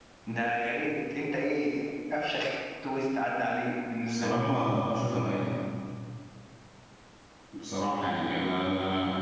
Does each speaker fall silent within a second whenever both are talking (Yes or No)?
Yes